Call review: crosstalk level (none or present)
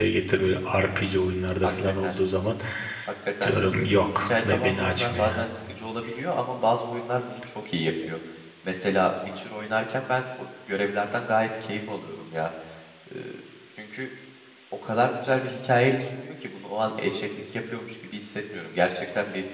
present